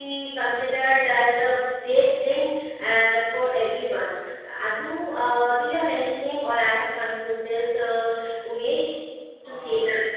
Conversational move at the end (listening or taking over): taking over